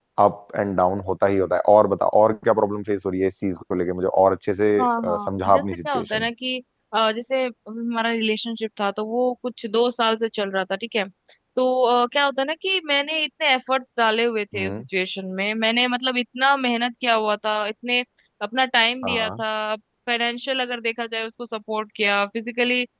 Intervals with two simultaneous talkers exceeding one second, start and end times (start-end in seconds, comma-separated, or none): 4.8-6.3